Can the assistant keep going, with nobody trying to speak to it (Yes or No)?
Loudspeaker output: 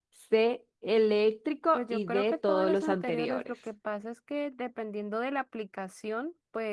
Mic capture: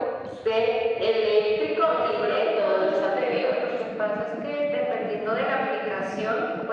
Yes